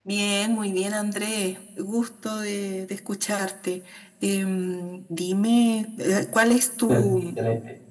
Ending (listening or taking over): taking over